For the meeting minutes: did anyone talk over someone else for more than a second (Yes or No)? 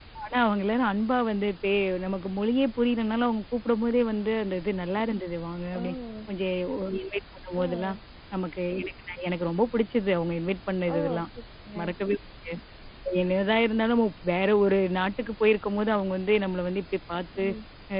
No